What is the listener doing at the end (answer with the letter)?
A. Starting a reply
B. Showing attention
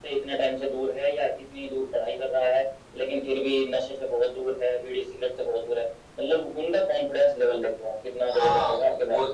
A